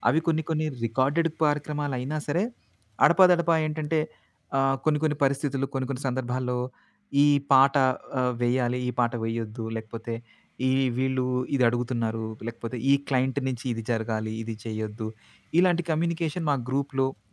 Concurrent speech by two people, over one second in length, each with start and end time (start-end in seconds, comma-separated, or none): none